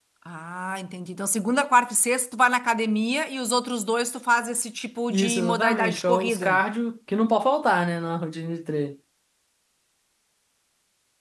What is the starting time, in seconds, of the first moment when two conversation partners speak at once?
5.1 s

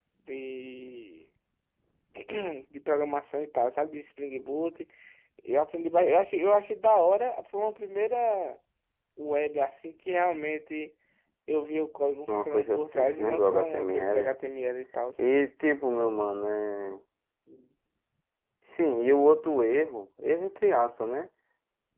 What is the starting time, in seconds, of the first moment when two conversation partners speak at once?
12.3 s

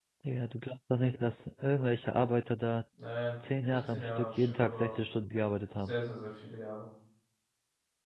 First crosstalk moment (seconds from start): 3.6 s

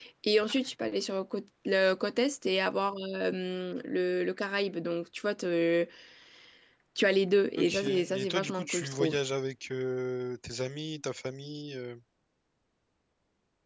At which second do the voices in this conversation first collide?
7.6 s

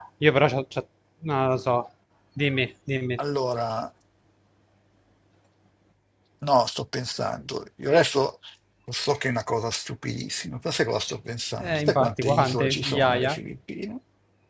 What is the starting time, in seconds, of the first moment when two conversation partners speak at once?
11.6 s

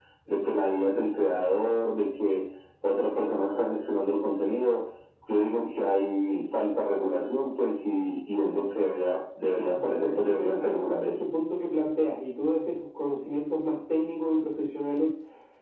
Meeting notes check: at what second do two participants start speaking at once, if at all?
9.7 s

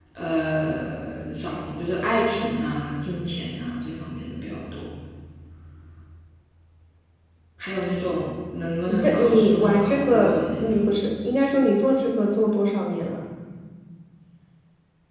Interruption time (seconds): 8.9 s

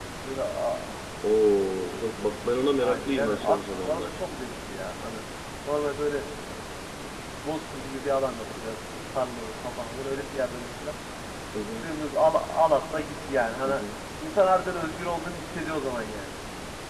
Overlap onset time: 2.8 s

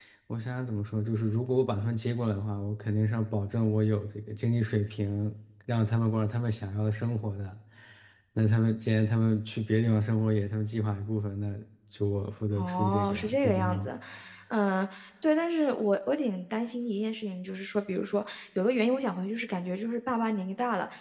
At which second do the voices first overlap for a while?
12.6 s

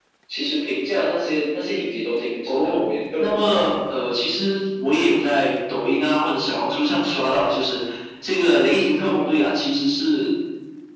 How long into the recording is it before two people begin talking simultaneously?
2.5 s

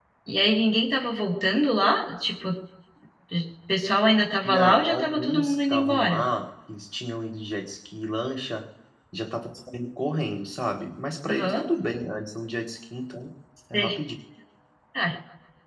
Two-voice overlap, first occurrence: 4.4 s

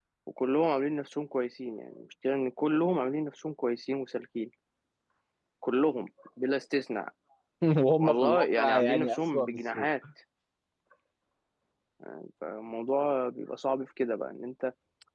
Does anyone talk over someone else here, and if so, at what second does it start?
8.0 s

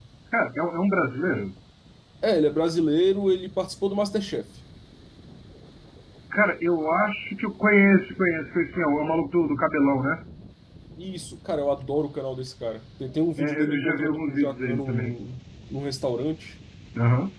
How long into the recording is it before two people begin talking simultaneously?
13.4 s

